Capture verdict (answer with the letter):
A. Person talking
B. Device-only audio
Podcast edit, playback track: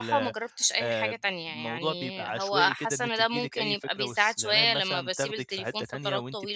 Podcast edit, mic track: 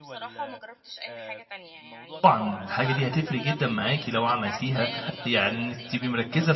A